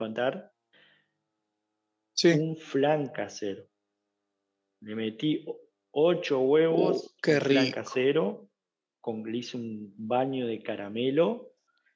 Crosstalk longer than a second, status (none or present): present